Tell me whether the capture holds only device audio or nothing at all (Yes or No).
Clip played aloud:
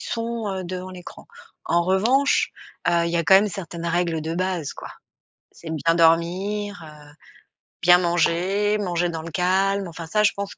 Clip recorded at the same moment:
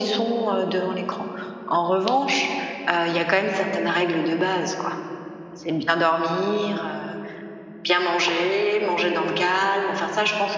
Yes